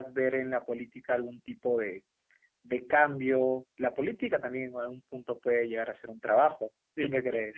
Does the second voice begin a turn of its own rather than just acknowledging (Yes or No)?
Yes